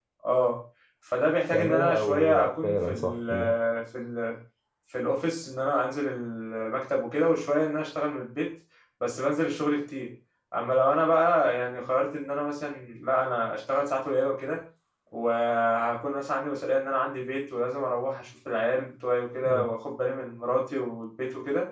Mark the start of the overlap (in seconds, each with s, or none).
1.5 s